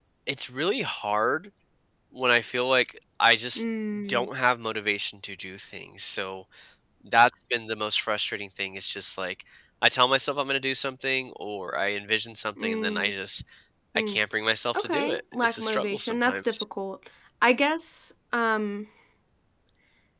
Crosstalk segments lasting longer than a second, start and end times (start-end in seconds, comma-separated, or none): 14.7-16.6